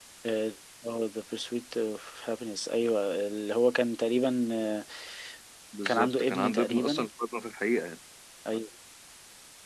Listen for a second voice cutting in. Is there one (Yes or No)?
Yes